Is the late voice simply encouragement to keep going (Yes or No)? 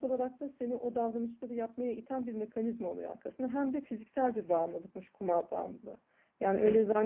Yes